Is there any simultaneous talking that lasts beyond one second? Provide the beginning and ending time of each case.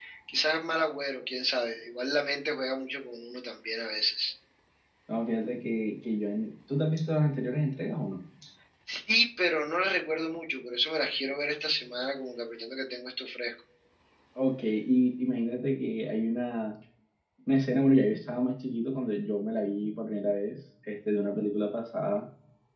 none

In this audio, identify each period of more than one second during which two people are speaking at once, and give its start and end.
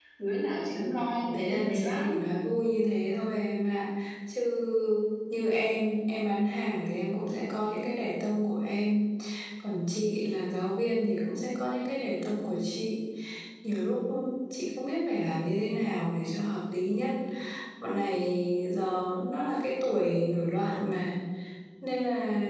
0.7-2.2

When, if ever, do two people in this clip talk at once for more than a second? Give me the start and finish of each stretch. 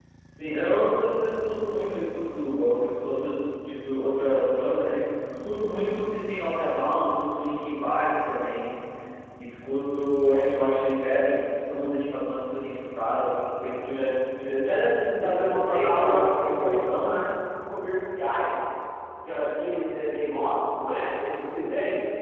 15.2-17.1

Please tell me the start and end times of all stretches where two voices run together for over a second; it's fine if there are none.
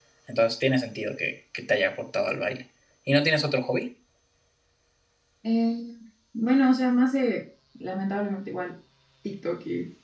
none

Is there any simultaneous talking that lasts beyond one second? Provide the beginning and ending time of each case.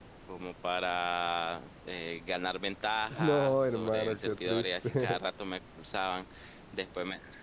3.1-5.2

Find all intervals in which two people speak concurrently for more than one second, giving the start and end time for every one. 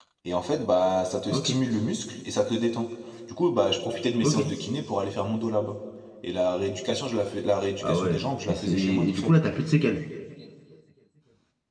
7.8-9.3

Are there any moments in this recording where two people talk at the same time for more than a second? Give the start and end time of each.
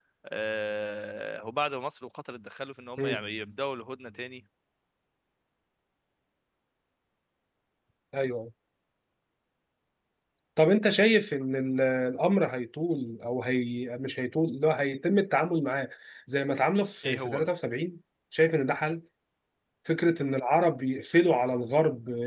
none

